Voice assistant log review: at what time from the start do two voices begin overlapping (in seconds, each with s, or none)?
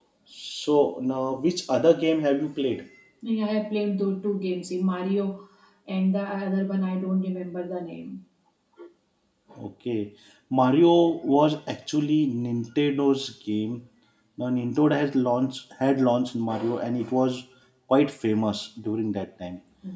none